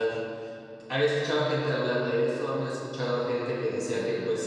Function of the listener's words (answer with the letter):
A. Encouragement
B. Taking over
A